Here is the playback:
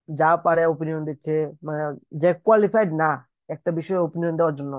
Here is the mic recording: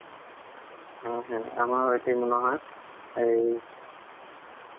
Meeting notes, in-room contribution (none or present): present